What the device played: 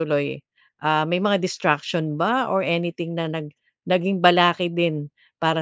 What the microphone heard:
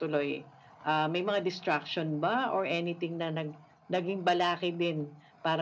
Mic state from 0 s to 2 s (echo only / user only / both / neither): echo only